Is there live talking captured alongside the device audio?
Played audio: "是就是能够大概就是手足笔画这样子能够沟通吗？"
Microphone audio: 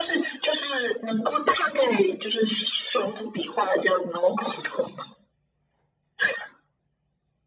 No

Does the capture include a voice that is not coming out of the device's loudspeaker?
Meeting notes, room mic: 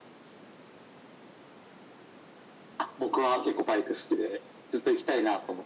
No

